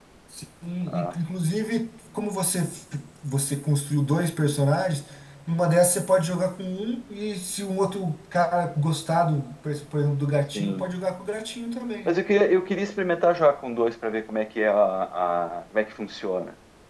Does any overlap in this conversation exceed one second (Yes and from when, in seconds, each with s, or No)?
No